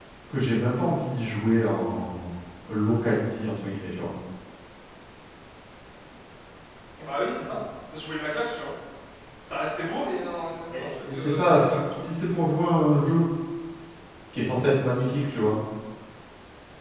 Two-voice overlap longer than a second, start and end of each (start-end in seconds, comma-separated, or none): 10.7-12.0